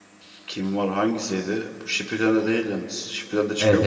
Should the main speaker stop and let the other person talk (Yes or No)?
Yes